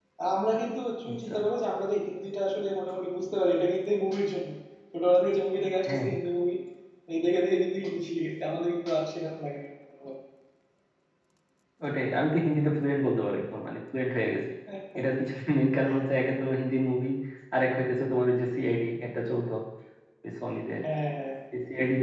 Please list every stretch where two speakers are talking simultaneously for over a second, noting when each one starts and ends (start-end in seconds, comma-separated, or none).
none